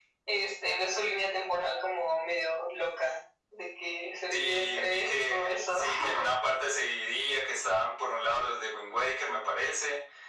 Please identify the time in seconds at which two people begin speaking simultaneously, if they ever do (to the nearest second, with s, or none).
4 s